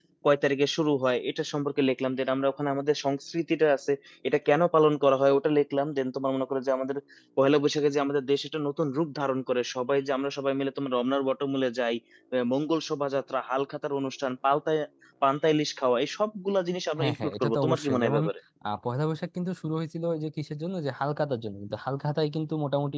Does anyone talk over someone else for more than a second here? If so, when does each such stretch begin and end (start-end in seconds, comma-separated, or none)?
17.0-18.2